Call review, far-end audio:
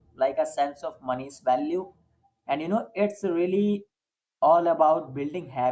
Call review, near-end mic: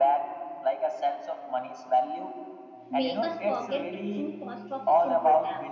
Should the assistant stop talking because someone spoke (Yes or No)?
Yes